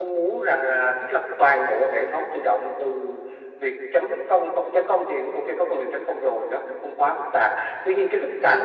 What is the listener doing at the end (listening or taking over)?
listening